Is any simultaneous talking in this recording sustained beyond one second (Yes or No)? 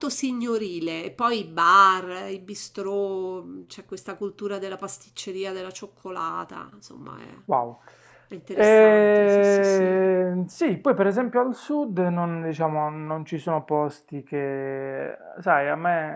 Yes